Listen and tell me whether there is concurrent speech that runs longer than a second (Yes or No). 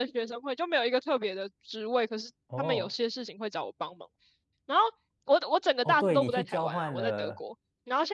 Yes